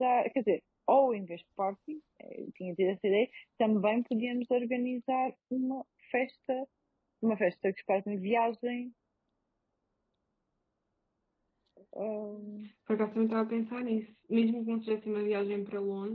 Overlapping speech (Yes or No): No